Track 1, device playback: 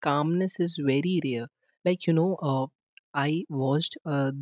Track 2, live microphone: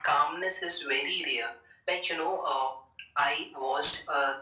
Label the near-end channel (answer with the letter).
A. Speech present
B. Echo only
B